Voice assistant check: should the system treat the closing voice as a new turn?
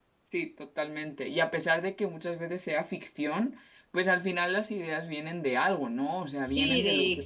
Yes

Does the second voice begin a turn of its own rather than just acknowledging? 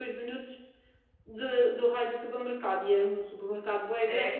Yes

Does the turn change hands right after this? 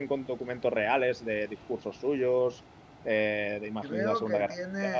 Yes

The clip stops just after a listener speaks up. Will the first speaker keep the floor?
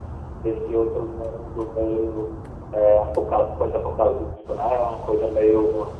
Yes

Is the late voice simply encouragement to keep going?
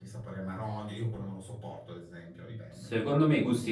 No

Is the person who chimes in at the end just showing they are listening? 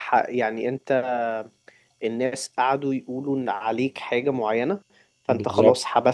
Yes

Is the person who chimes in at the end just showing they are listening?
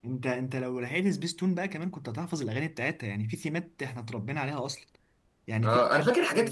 No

